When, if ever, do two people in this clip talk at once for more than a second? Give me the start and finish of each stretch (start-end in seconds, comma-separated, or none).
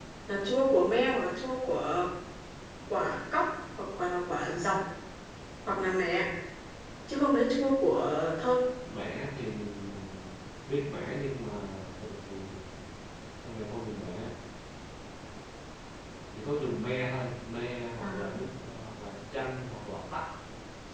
none